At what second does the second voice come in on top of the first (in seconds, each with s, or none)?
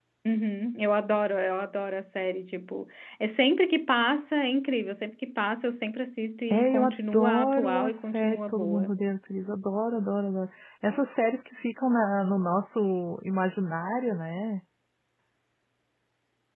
6.5 s